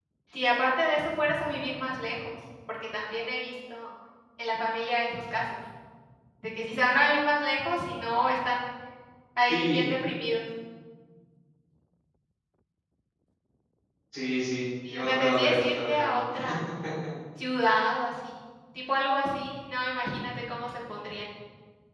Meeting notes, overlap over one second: present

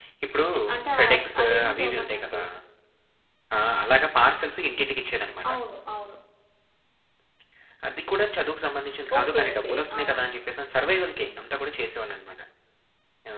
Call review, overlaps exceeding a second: present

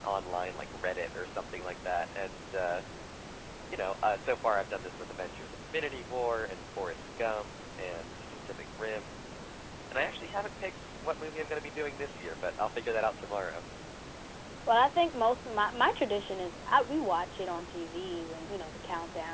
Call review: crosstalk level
none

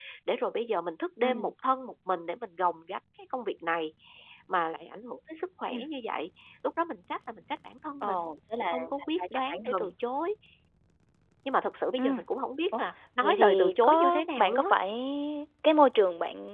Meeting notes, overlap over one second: present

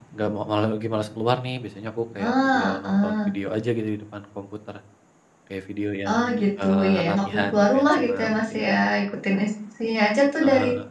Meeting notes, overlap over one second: present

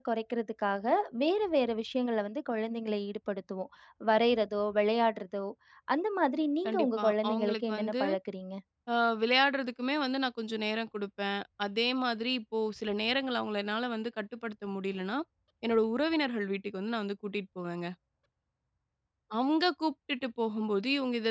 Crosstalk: present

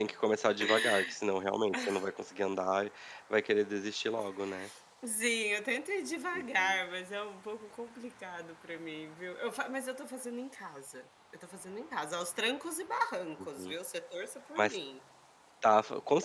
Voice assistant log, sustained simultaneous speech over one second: none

